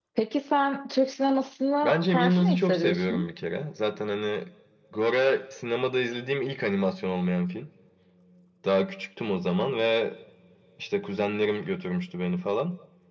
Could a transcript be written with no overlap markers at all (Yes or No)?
No